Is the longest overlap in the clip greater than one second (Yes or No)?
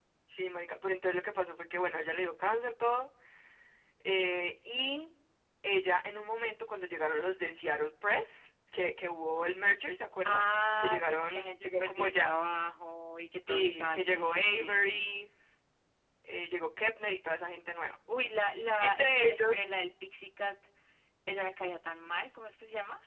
Yes